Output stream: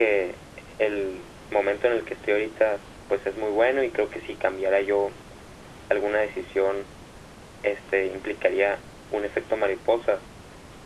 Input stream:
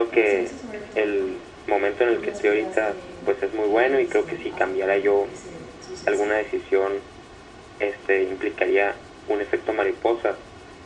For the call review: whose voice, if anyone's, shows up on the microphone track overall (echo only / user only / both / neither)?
both